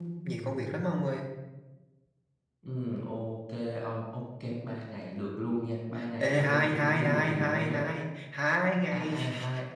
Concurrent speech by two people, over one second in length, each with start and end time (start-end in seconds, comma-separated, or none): 6.2-7.9